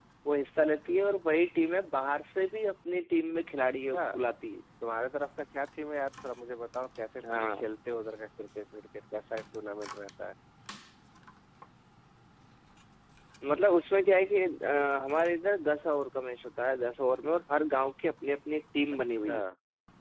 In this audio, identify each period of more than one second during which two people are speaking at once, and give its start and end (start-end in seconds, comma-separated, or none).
none